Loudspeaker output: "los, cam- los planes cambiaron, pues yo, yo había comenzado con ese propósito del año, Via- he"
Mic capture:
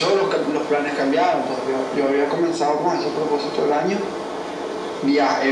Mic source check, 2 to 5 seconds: echo only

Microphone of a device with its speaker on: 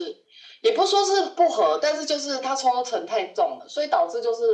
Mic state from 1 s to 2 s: echo only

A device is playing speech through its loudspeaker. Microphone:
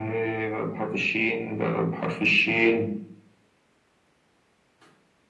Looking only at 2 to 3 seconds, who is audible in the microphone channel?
echo only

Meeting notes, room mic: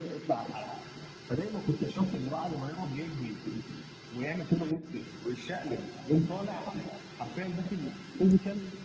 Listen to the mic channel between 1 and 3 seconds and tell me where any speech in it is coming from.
echo only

